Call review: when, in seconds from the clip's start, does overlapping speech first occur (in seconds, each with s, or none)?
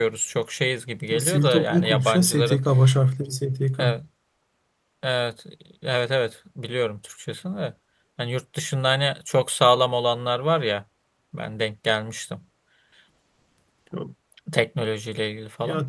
1.1 s